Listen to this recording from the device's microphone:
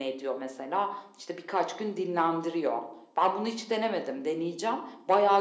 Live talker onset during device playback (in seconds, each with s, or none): none